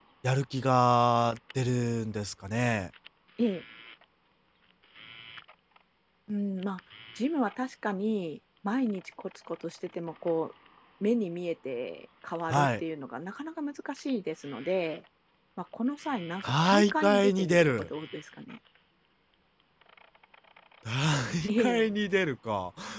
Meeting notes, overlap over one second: present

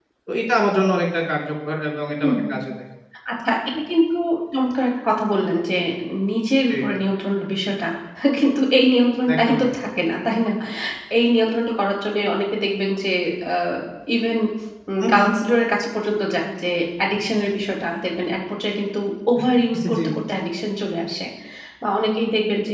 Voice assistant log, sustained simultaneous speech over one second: none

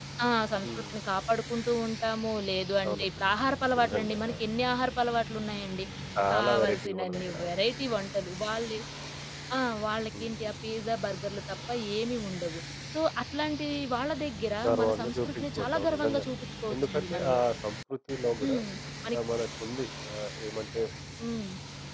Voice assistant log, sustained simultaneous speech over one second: present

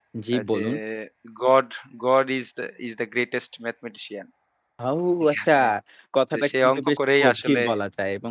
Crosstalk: present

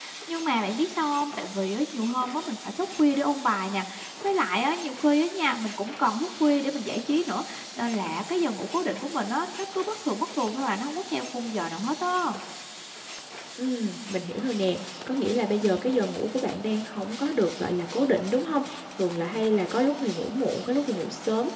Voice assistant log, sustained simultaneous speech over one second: none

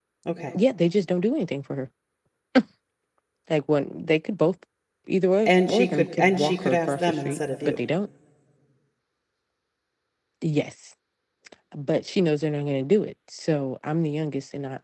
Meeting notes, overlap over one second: present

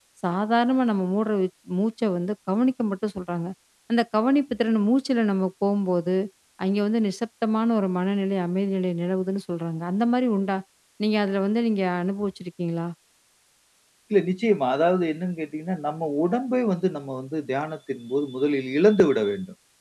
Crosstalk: none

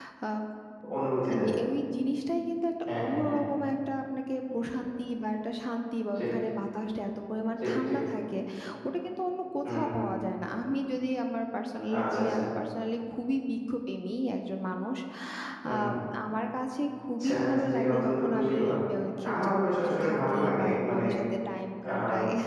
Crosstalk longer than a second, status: present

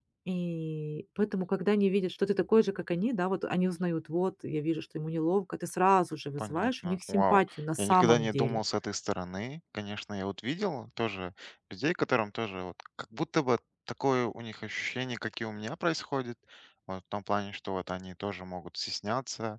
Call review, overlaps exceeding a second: present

